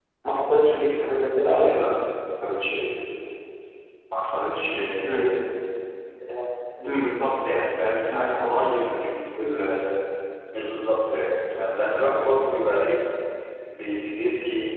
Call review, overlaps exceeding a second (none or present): none